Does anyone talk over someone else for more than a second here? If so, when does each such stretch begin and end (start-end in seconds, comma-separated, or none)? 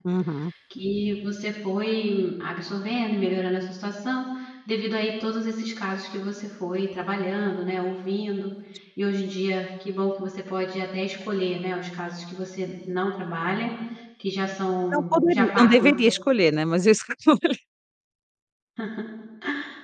14.9-16.1